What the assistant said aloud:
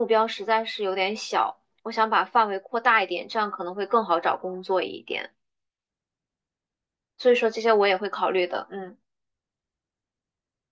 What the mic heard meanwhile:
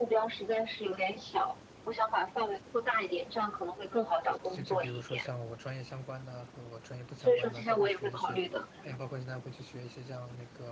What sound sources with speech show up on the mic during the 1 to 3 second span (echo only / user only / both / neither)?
echo only